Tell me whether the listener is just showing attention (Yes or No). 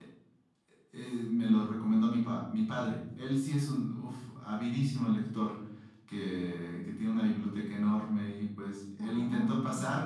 Yes